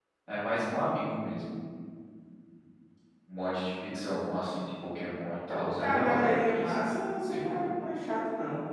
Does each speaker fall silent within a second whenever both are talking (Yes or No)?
No